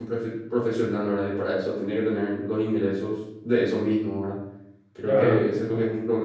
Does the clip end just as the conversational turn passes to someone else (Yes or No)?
No